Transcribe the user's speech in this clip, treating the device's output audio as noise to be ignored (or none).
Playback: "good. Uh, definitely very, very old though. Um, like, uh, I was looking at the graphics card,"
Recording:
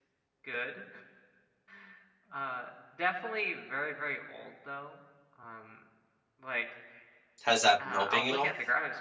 Has that been helping at all?